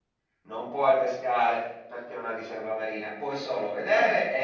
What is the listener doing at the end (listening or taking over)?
listening